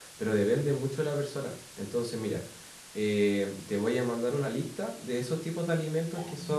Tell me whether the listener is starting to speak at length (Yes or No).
No